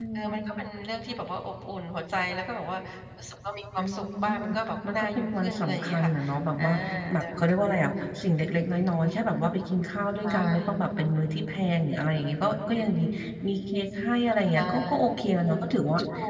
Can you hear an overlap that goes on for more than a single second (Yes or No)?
Yes